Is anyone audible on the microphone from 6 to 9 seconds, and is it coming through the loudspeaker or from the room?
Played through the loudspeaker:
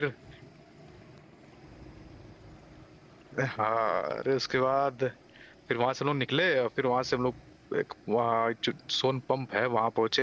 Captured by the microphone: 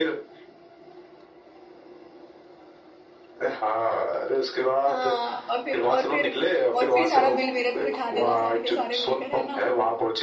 both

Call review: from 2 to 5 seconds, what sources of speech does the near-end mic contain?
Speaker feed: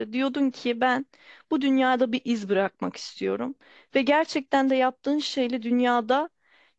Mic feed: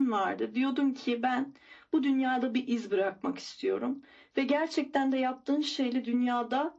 echo only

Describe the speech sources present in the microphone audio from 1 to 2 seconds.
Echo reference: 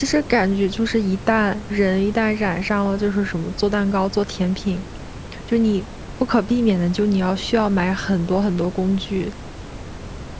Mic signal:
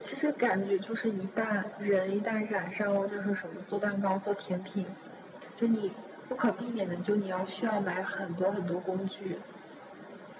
echo only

